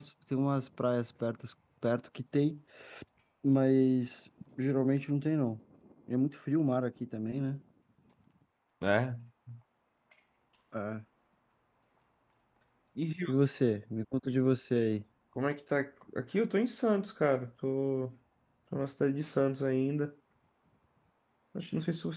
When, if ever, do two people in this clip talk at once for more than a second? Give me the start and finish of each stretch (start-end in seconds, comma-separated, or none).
none